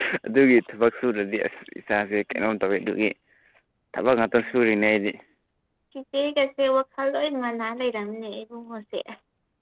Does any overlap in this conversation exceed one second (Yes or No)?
No